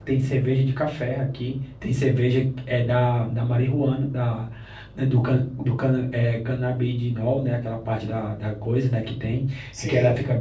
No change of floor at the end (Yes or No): Yes